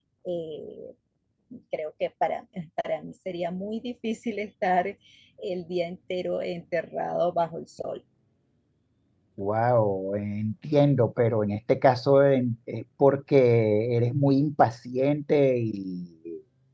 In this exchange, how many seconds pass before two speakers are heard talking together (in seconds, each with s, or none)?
none